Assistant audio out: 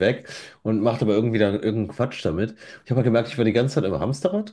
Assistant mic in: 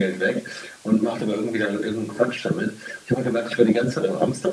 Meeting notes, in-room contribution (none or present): none